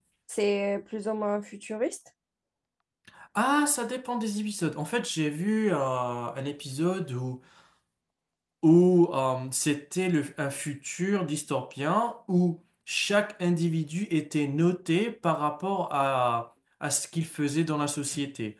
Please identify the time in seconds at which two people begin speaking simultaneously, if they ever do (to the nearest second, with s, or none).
none